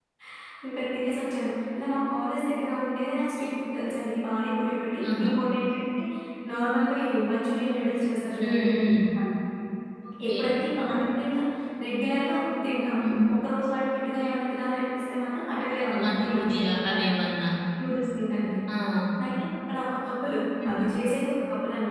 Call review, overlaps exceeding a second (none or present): present